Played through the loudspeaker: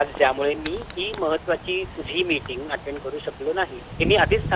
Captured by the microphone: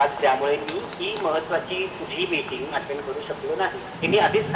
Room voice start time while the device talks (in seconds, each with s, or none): none